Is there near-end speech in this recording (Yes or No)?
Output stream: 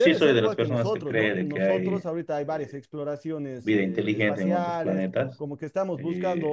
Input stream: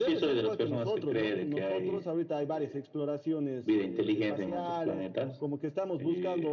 No